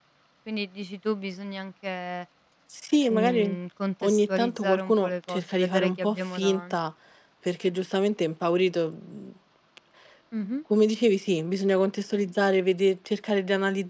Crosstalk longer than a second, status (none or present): present